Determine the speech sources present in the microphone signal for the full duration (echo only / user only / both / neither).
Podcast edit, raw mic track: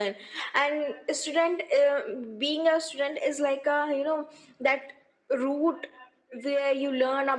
echo only